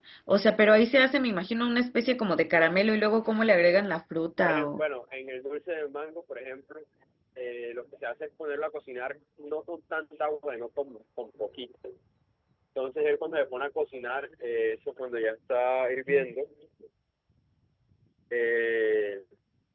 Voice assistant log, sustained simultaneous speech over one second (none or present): none